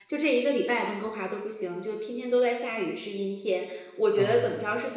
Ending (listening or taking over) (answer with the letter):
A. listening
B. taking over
A